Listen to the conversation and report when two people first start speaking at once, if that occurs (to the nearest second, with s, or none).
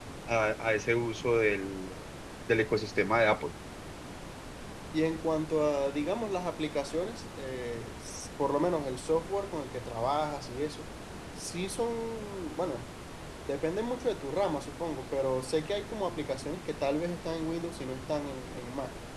none